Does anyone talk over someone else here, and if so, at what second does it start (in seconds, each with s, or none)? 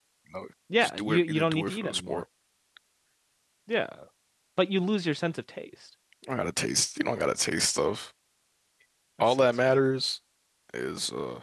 0.8 s